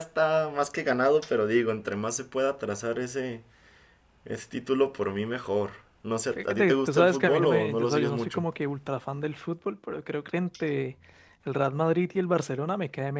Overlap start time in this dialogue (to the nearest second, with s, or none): 6 s